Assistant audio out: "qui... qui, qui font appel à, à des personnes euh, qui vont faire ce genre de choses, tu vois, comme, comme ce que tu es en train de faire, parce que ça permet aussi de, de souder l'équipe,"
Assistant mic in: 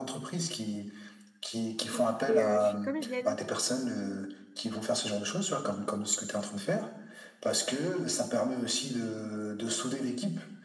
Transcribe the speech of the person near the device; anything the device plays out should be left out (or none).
et, et, euh, je suis comédienne.